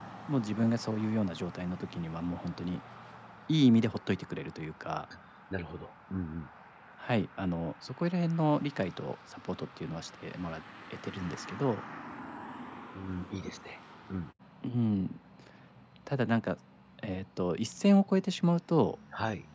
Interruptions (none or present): none